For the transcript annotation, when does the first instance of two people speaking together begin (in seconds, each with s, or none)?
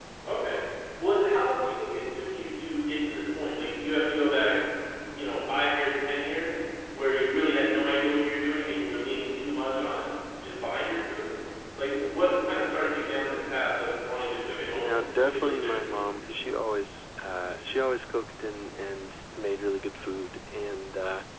14.7 s